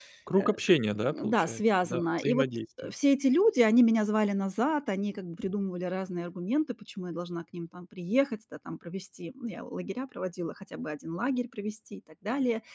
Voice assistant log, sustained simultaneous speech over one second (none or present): present